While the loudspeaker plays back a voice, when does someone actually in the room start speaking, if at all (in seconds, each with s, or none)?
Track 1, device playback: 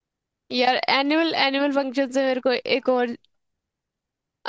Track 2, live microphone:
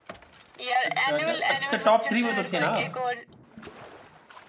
0.8 s